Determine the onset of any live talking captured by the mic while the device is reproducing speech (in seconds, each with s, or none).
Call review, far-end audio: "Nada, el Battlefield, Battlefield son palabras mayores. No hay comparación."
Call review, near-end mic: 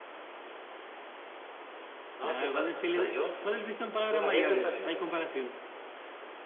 2.1 s